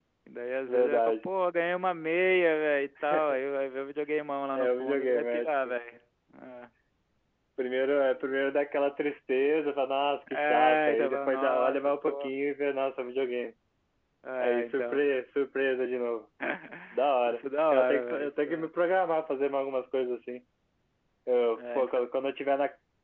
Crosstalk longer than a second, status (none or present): present